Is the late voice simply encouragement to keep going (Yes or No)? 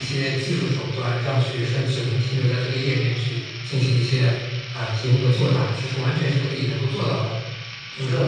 No